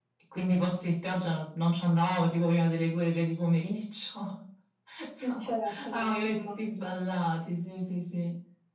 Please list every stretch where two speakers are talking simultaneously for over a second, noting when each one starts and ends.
5.2-7.0

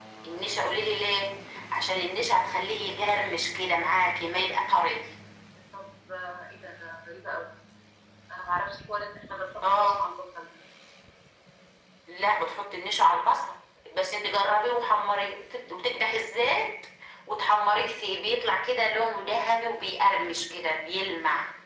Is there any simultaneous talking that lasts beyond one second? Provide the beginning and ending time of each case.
none

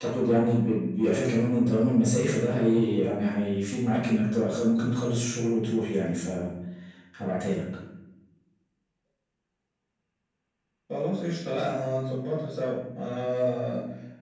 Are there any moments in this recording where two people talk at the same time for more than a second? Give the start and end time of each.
none

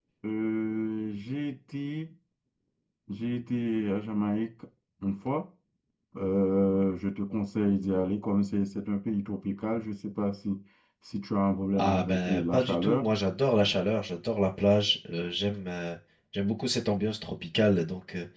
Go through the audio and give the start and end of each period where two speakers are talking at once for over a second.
11.7-13.1

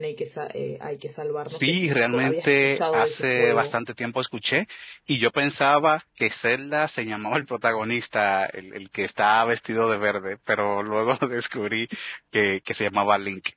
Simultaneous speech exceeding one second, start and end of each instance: 1.5-3.7

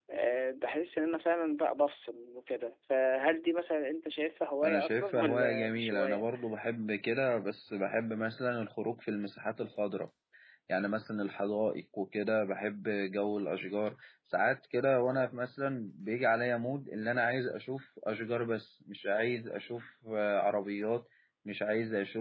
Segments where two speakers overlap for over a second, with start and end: 4.6-6.2

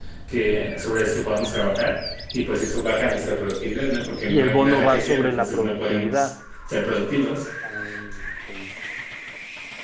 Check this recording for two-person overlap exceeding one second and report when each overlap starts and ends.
4.3-6.3

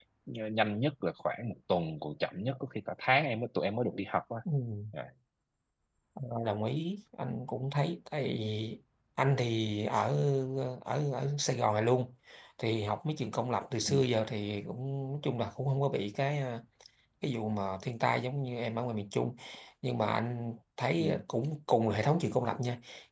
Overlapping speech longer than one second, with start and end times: none

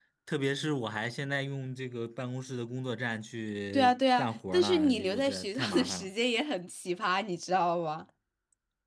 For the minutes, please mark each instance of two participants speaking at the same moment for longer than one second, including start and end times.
3.7-6.1

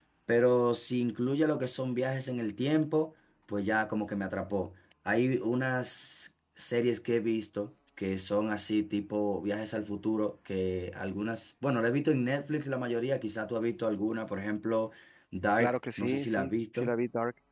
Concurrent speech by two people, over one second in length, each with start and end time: 15.6-16.9

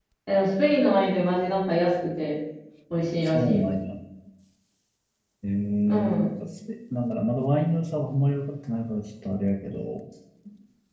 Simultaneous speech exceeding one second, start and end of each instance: none

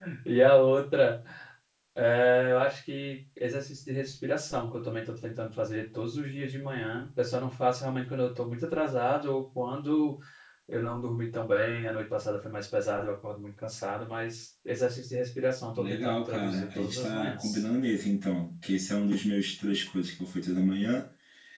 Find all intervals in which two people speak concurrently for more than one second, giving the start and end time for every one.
15.8-17.6

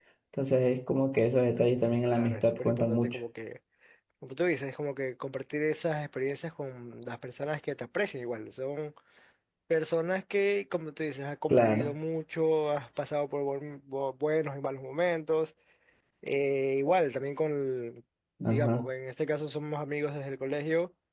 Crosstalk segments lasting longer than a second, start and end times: 1.8-3.2

